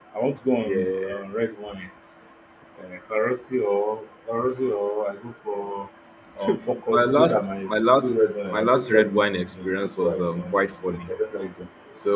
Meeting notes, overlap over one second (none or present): present